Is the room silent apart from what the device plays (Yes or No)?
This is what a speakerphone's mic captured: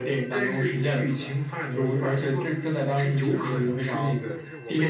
No